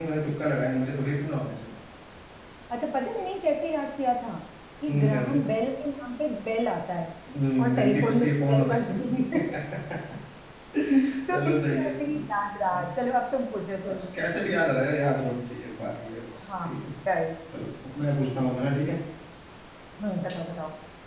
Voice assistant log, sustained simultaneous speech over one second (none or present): present